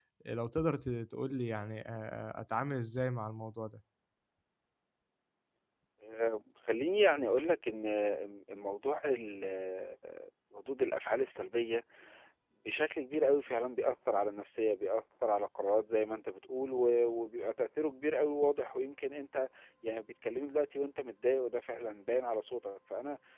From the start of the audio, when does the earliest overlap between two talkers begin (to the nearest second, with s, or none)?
none